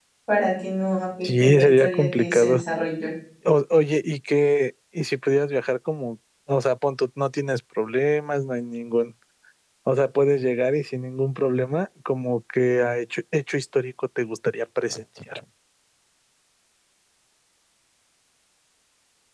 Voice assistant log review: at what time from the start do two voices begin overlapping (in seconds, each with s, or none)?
1.2 s